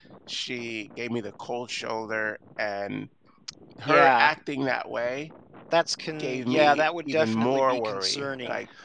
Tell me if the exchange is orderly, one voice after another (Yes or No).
No